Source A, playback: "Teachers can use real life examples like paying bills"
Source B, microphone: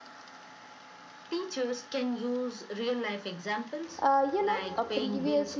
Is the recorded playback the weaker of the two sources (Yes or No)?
Yes